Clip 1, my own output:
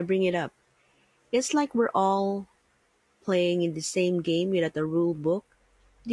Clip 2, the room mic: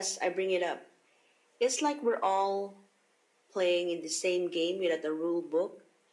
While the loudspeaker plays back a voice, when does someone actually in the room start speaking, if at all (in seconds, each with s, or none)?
none